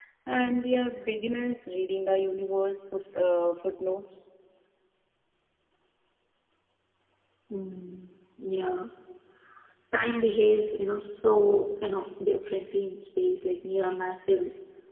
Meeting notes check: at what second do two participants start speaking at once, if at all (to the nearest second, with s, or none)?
none